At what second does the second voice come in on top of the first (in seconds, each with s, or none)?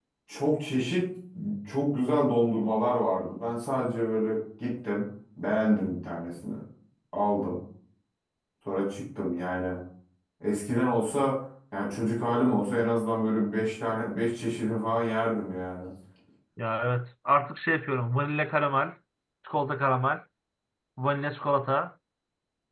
none